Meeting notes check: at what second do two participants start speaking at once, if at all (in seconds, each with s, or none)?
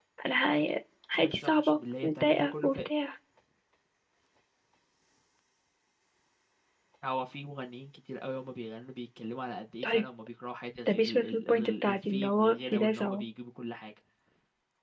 1.1 s